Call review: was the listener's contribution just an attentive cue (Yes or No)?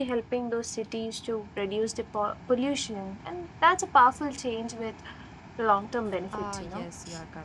No